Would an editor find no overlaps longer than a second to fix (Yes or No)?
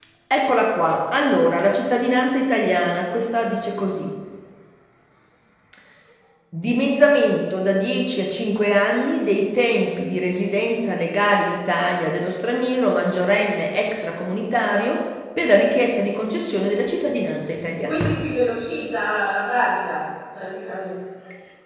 Yes